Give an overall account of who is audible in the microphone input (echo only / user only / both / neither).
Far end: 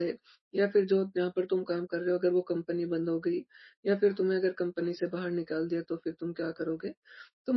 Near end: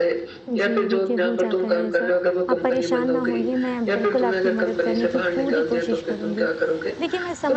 both